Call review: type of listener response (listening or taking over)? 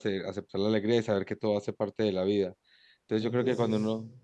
listening